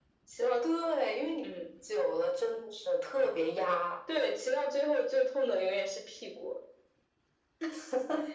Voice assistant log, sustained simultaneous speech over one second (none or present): none